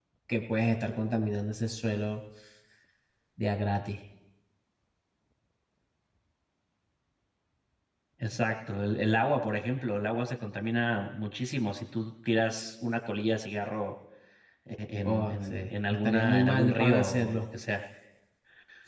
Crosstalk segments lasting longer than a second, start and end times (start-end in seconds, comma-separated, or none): 15.0-17.4